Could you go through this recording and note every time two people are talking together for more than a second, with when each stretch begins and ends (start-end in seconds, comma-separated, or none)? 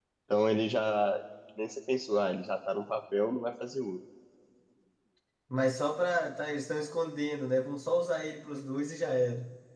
none